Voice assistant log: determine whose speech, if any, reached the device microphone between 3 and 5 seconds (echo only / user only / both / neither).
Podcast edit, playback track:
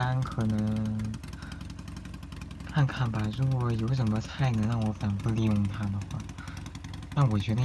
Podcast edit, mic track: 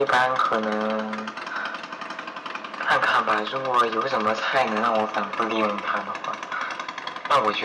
echo only